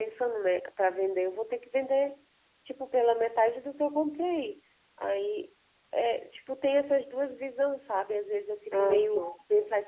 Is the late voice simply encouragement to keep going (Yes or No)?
Yes